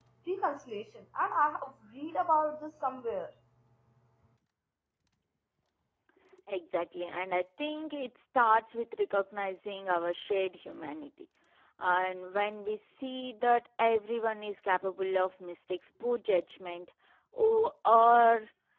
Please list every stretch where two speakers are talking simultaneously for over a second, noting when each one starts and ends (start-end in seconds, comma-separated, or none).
none